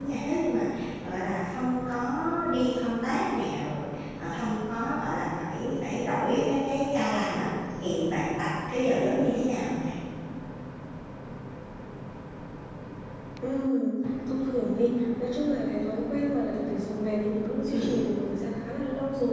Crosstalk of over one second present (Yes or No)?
No